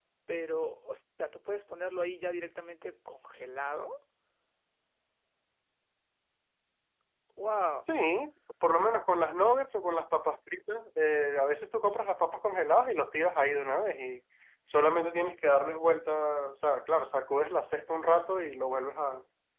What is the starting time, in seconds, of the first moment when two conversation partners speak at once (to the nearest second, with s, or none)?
none